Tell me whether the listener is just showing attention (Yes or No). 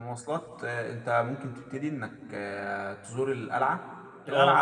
Yes